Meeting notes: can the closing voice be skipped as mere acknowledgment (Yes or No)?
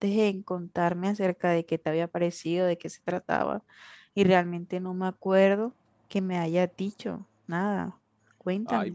No